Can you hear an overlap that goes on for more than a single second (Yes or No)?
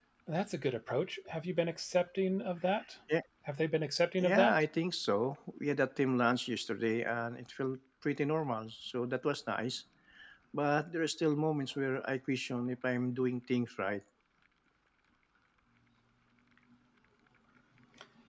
No